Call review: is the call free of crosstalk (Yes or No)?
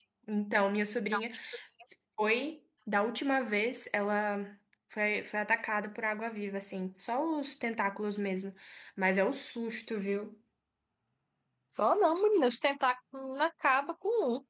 Yes